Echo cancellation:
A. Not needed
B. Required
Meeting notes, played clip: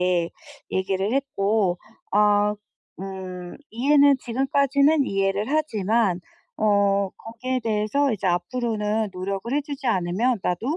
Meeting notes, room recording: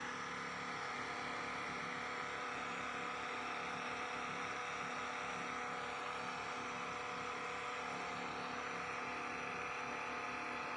A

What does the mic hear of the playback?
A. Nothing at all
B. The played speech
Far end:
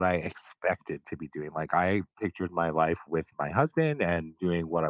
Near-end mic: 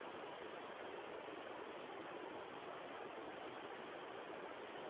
A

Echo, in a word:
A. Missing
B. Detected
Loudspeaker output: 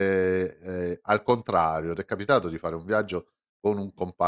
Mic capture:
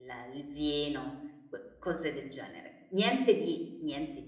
A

